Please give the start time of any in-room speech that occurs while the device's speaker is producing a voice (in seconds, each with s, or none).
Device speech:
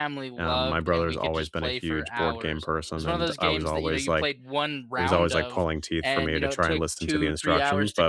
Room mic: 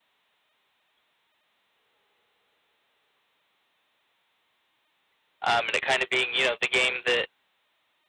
5.4 s